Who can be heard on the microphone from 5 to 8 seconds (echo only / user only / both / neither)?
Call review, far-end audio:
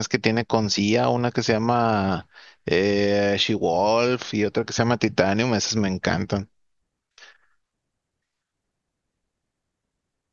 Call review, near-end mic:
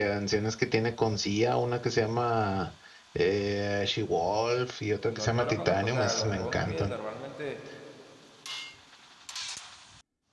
both